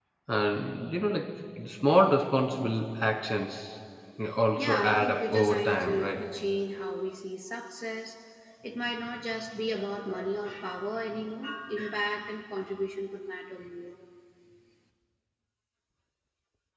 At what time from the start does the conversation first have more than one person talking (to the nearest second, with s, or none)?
5 s